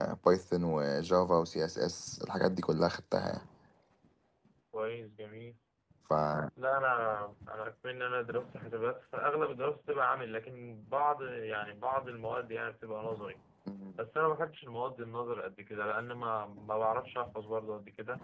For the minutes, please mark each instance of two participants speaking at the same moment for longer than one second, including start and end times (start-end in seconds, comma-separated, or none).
none